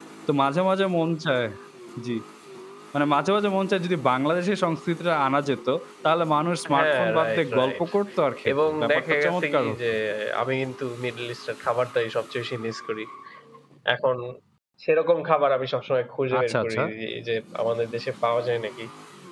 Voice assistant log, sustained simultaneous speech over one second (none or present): present